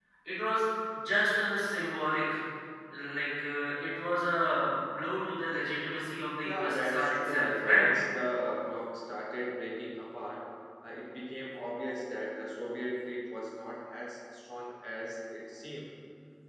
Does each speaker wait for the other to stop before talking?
No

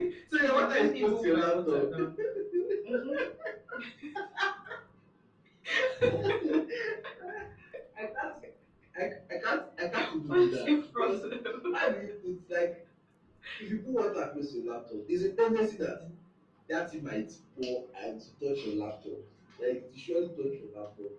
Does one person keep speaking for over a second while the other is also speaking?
Yes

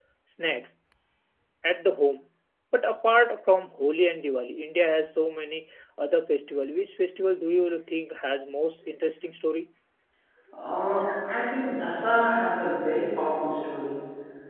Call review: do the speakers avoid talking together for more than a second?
Yes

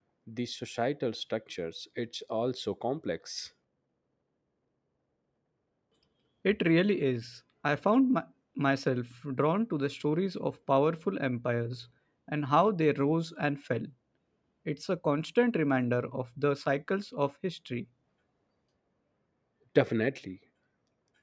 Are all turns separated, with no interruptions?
Yes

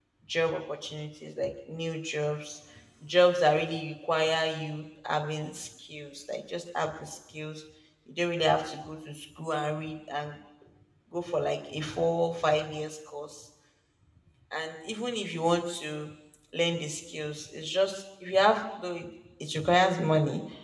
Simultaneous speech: No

